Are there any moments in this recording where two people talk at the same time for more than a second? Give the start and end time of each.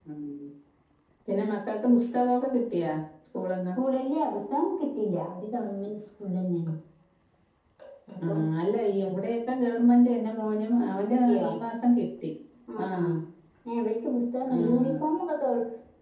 none

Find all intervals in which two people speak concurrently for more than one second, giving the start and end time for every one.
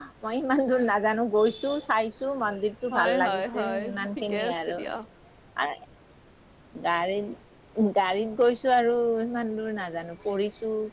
2.9-4.8

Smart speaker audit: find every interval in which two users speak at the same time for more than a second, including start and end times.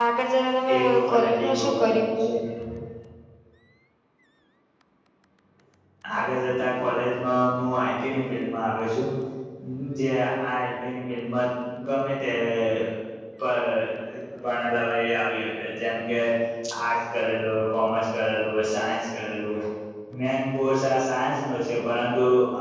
0.8-2.1

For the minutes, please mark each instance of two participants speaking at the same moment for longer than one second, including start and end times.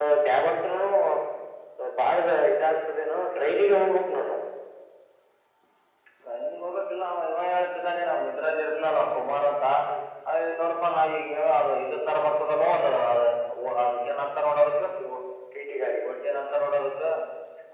none

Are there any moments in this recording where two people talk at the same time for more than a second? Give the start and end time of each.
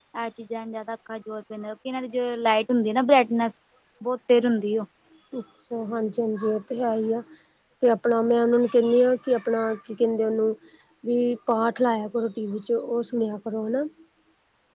none

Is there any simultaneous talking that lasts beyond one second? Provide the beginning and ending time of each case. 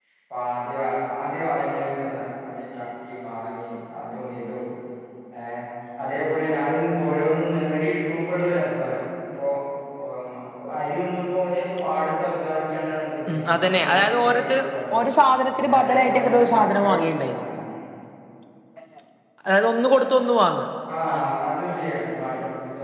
13.3-14.6, 15.5-16.9

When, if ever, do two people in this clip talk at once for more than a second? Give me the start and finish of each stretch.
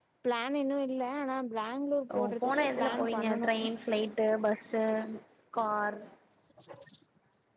2.2-3.5

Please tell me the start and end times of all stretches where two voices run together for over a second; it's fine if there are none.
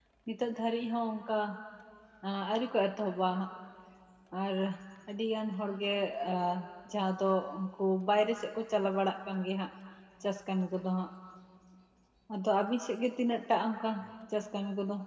none

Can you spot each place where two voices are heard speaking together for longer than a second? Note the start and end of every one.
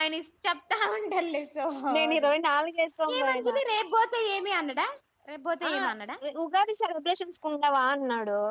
none

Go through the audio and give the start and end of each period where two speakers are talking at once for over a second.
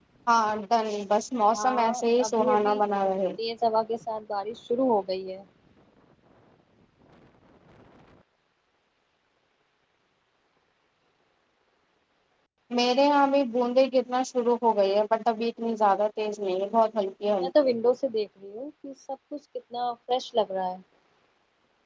1.5-2.8

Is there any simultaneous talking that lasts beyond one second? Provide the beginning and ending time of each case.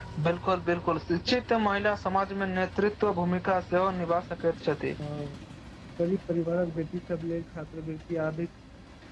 none

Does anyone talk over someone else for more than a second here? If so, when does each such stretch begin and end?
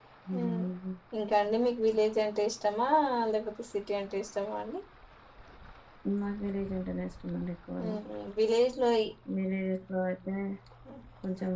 none

